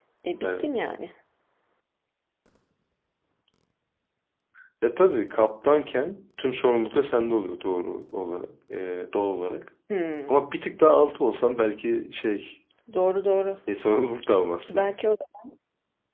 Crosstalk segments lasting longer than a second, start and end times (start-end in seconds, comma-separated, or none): none